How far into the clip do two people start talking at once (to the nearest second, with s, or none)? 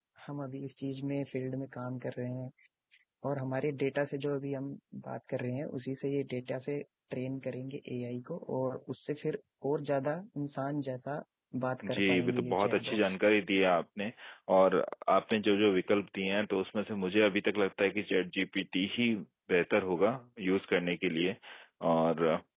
12 s